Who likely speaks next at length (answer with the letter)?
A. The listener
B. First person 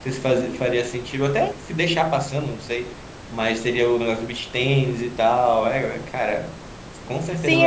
A